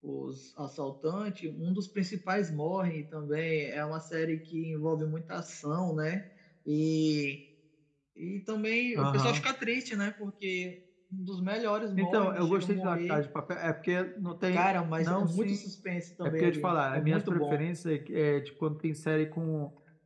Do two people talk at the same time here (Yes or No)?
Yes